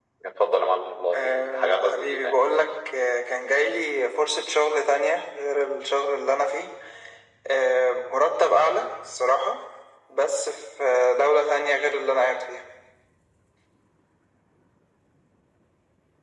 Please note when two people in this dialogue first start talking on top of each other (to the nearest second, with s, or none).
1 s